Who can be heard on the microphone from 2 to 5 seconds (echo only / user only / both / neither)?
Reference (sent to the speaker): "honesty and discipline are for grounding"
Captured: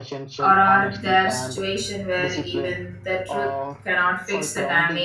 both